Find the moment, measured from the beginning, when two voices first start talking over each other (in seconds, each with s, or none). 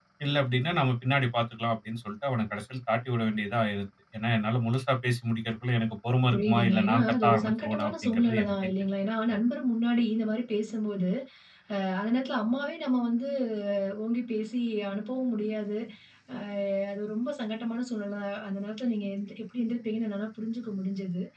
6.3 s